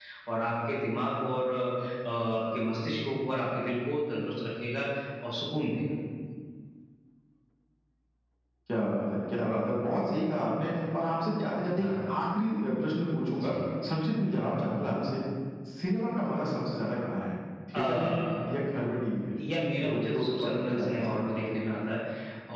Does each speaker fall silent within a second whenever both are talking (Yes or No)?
No